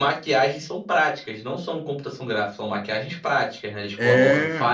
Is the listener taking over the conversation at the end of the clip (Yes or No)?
No